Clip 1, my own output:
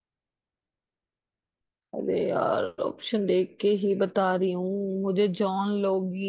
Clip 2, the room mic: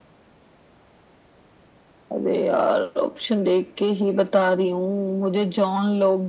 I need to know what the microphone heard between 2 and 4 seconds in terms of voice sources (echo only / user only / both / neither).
echo only